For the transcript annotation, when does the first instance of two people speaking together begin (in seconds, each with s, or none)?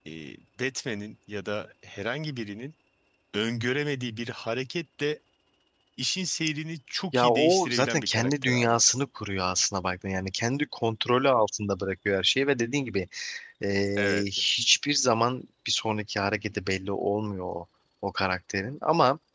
7.1 s